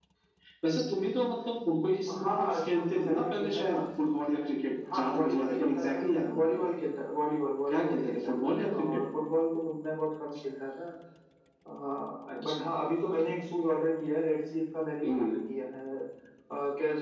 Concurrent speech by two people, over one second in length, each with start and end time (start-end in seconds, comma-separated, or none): 2.2-3.8, 4.9-6.5, 7.7-9.0